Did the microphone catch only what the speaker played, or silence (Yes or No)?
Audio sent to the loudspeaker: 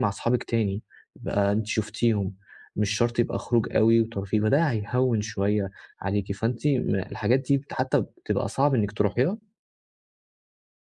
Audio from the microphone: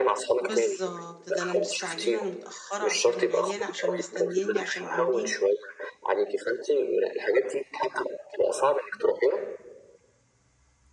No